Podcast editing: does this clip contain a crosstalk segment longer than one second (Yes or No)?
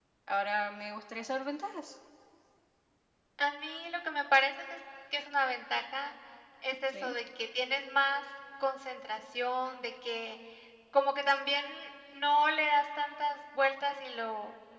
No